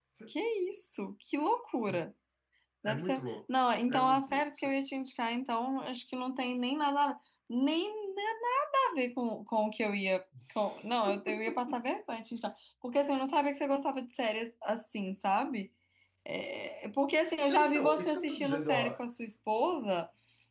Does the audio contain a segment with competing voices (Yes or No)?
Yes